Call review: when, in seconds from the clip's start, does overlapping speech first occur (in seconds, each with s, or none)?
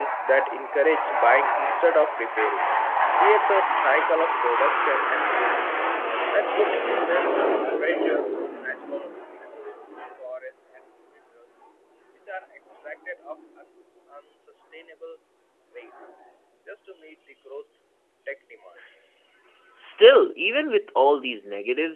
none